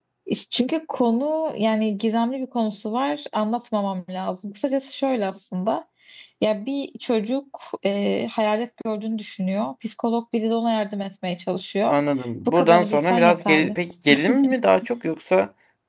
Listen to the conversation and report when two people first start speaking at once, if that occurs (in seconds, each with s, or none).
12.5 s